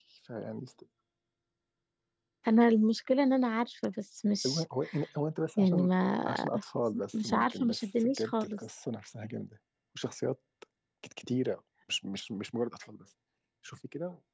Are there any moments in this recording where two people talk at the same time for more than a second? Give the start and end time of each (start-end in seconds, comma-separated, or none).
7.2-8.6